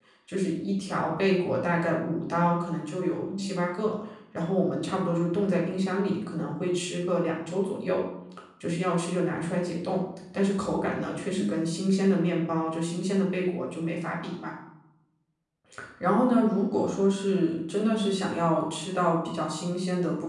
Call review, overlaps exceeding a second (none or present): none